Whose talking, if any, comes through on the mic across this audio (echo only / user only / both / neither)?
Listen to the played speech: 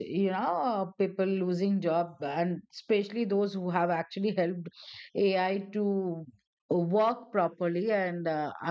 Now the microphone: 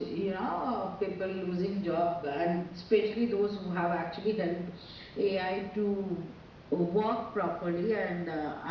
echo only